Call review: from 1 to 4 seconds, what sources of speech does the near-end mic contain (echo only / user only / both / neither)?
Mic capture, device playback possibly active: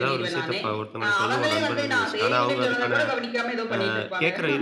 both